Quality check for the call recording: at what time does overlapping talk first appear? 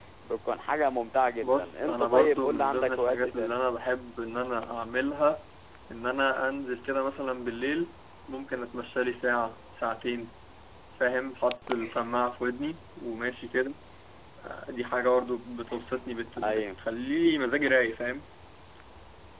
1.4 s

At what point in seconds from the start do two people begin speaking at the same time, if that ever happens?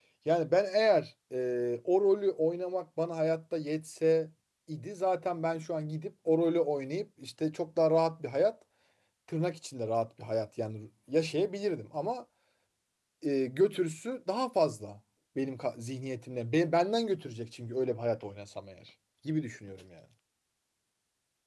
none

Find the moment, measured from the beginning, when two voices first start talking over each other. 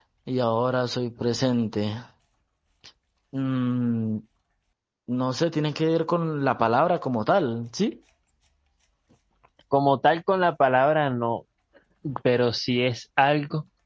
none

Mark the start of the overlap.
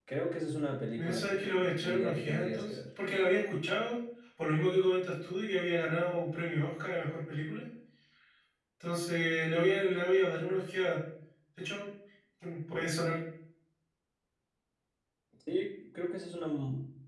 1.0 s

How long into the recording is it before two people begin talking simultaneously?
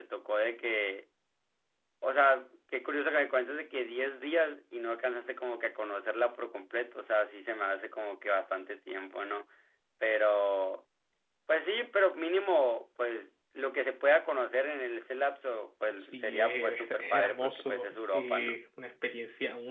16.0 s

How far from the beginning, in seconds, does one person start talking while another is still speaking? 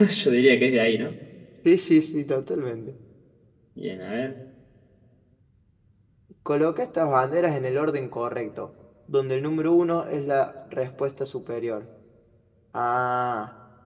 none

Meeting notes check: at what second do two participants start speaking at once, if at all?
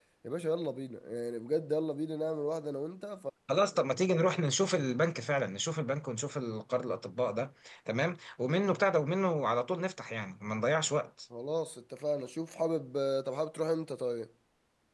none

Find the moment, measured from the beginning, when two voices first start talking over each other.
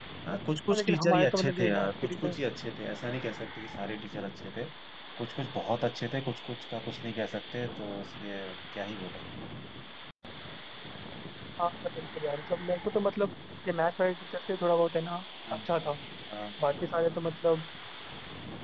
0.7 s

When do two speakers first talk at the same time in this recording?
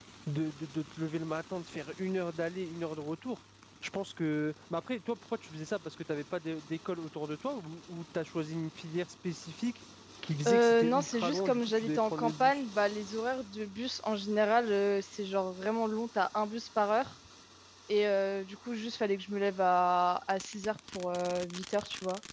10.5 s

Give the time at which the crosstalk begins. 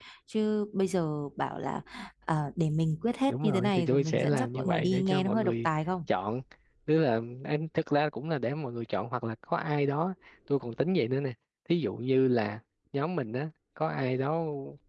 3.3 s

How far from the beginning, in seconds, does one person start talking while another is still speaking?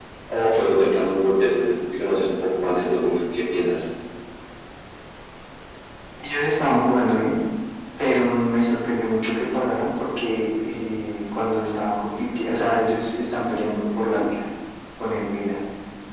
none

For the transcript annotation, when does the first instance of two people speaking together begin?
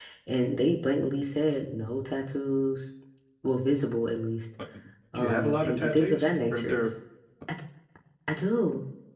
5.1 s

